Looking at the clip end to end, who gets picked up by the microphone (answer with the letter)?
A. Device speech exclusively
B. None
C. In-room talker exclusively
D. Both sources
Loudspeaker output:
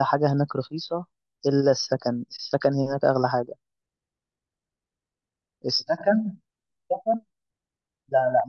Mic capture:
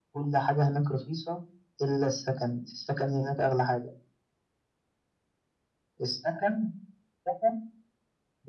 A